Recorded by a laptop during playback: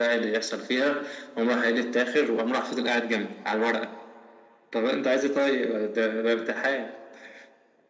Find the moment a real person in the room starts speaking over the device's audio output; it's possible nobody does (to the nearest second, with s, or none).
none